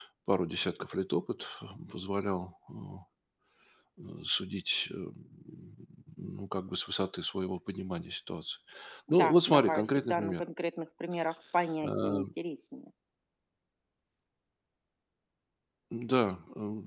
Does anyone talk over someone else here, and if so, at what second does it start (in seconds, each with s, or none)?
9.2 s